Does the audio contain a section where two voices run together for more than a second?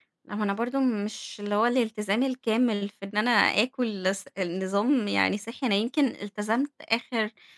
No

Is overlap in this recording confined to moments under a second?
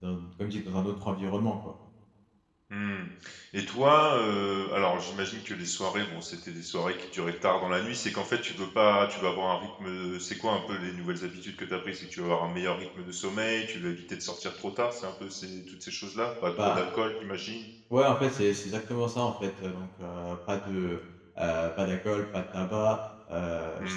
Yes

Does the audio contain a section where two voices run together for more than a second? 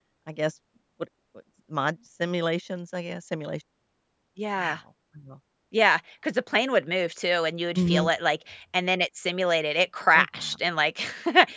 No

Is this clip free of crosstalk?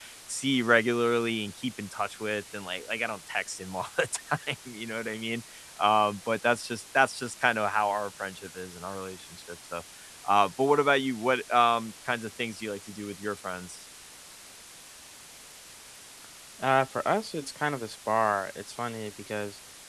Yes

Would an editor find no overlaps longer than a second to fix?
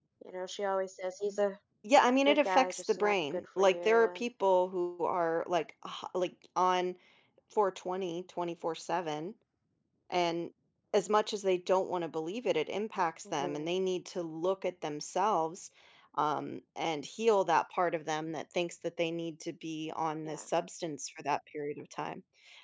No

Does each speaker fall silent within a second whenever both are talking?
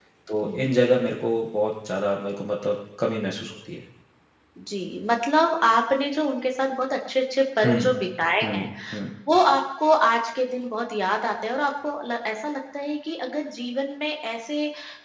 Yes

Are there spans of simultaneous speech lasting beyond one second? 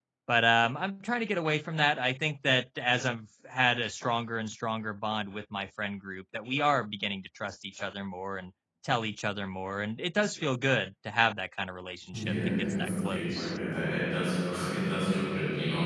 Yes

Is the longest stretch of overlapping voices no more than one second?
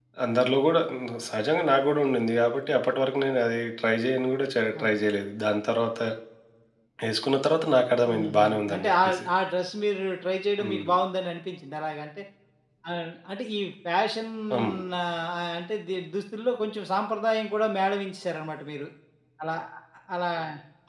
No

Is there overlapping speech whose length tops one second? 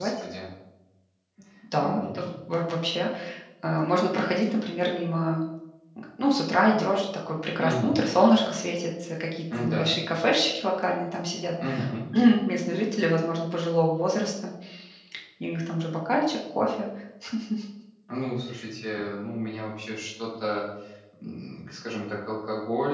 No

